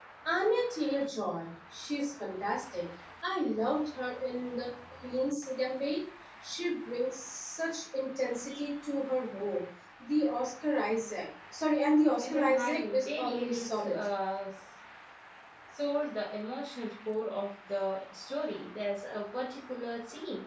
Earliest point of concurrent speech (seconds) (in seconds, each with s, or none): 12.2 s